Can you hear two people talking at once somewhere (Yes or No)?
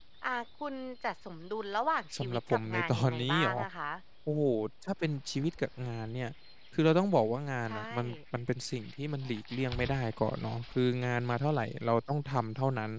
Yes